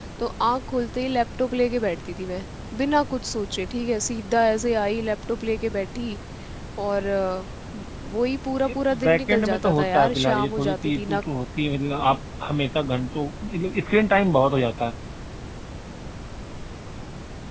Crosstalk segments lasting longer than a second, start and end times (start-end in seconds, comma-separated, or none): 8.7-11.2